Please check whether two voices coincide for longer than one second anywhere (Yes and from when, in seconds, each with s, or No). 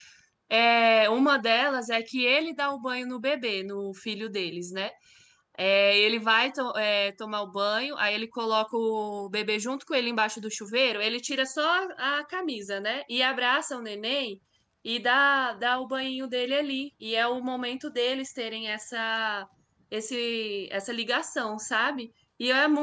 No